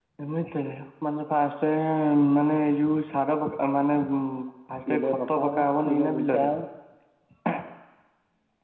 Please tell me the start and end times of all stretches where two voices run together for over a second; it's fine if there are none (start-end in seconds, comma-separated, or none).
4.9-6.5